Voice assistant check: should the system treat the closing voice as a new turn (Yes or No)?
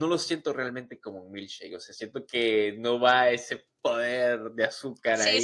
Yes